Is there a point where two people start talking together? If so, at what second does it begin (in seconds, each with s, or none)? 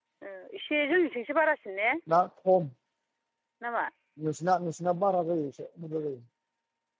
none